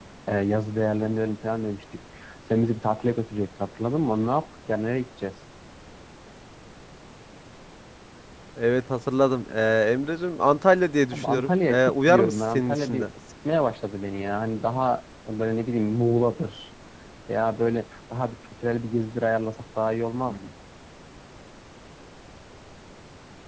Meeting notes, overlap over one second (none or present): present